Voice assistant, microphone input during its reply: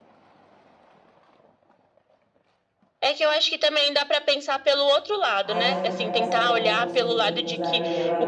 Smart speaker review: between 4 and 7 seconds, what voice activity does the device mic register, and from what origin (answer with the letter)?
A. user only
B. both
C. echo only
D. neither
B